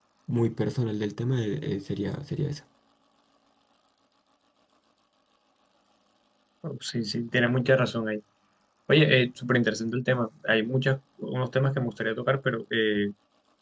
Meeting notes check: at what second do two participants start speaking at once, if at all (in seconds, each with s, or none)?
none